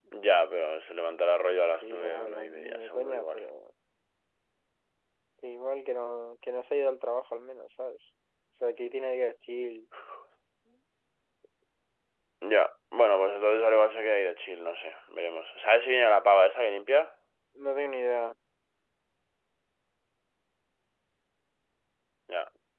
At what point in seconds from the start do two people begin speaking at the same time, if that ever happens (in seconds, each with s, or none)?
1.7 s